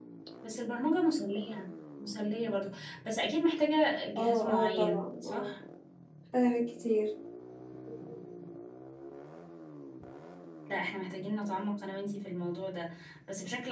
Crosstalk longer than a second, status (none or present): present